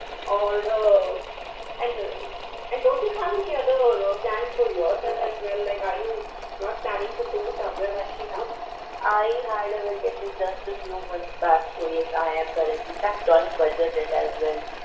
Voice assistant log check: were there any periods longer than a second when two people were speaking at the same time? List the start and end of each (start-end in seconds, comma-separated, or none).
none